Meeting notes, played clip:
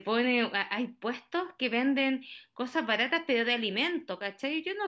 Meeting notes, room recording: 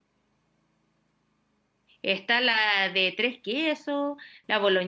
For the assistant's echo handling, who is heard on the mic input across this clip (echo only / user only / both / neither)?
user only